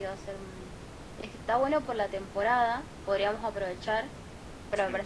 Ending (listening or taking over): listening